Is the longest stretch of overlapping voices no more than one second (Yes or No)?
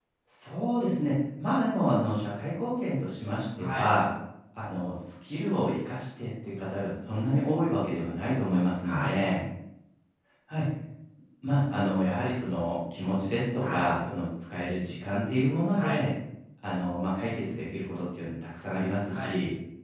Yes